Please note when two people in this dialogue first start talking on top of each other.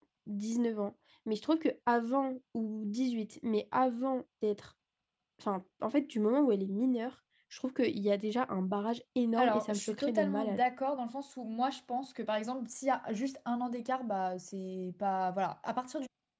9.4 s

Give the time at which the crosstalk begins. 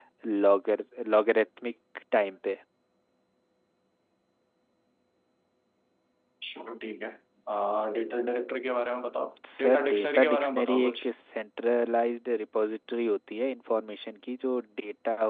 9.4 s

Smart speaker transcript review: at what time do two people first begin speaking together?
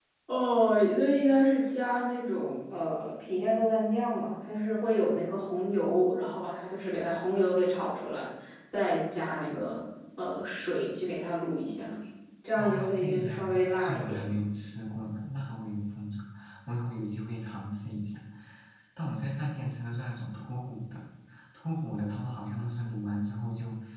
12.6 s

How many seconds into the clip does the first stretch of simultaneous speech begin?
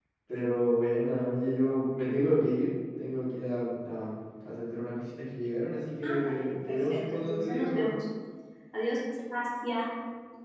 6.0 s

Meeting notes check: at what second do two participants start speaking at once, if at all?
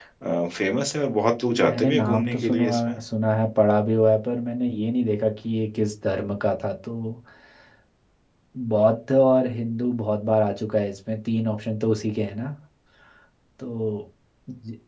1.5 s

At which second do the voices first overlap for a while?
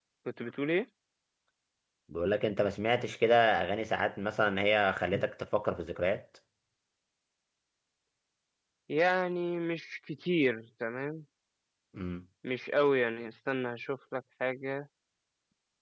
none

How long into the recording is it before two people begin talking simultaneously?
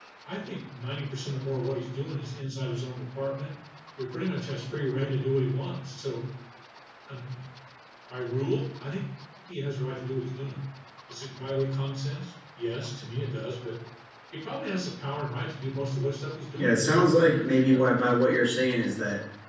16.6 s

